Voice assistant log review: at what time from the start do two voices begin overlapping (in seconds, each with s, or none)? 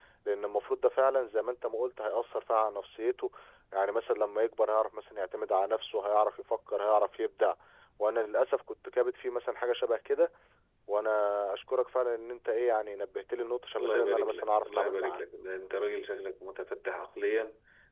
13.8 s